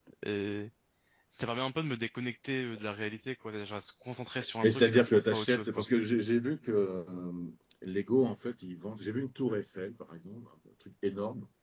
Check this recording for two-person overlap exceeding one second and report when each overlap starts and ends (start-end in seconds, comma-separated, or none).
4.6-5.8